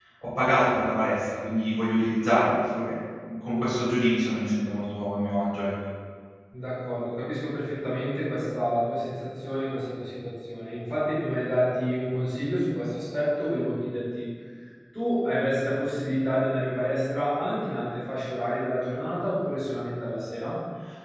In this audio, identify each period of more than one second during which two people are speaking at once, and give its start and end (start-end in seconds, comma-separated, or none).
none